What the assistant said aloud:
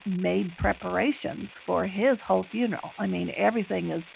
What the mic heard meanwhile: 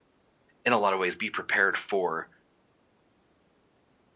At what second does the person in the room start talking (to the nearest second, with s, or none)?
1 s